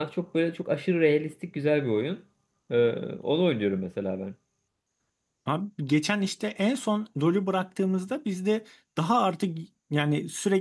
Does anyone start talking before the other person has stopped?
No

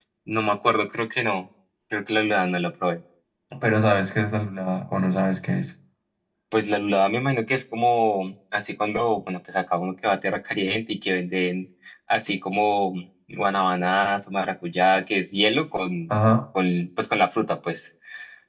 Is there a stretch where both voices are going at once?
No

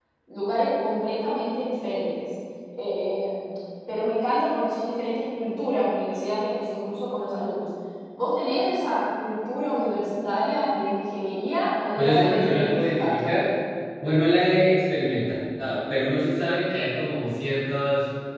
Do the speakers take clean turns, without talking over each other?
No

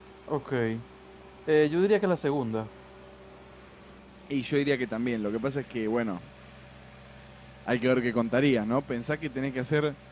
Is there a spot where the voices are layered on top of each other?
No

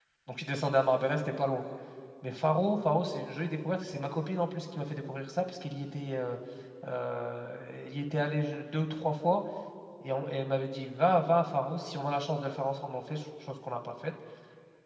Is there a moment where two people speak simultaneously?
No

